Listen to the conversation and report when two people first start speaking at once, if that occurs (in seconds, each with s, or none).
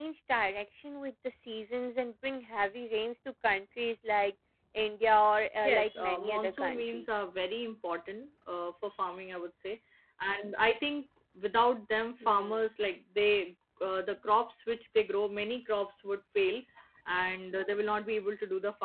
5.6 s